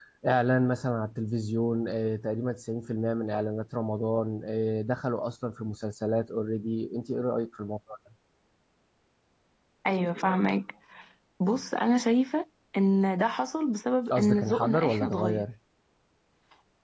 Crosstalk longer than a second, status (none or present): present